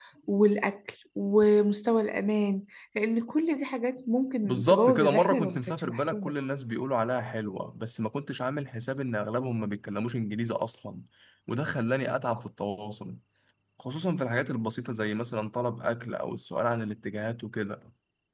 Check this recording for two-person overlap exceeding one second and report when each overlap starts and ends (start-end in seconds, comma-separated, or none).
4.4-6.3